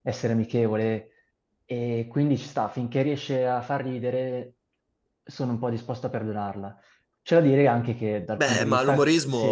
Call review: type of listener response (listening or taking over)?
taking over